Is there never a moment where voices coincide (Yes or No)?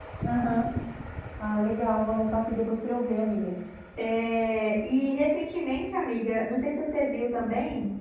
Yes